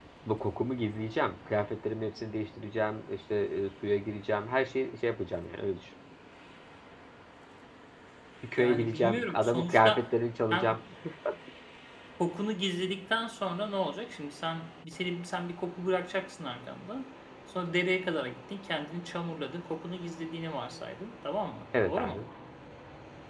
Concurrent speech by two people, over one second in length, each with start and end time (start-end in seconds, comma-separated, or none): 8.6-10.1